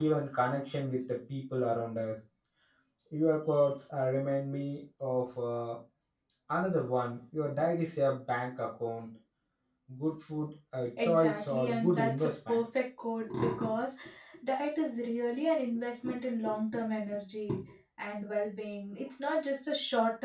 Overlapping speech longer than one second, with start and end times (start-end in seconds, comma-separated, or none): 11.0-12.6